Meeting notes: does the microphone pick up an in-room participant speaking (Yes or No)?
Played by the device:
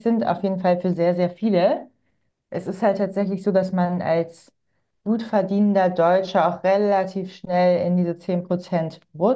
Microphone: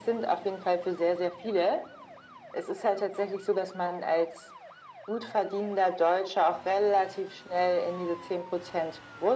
No